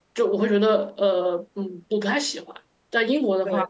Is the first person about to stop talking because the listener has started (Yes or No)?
No